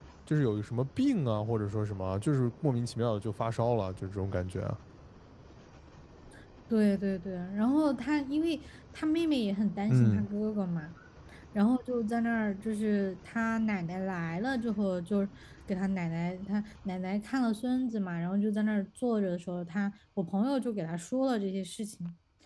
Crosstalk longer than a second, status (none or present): none